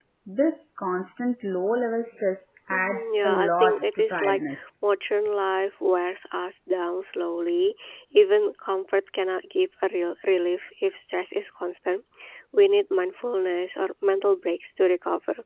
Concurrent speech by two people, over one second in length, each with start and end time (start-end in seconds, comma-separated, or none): 2.7-4.4